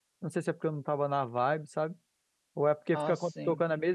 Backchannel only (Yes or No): Yes